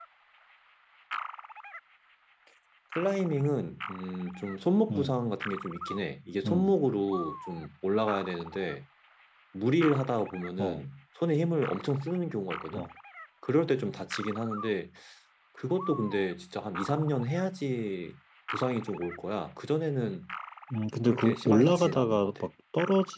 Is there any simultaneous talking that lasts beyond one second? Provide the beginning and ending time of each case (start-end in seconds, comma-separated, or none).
21.1-22.5